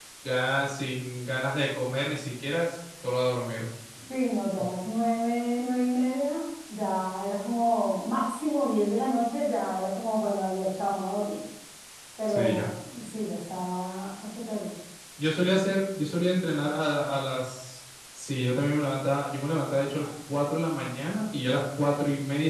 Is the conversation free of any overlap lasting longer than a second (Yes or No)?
Yes